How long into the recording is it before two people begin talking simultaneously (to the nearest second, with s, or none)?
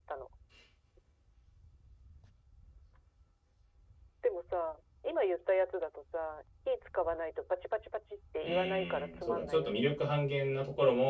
8 s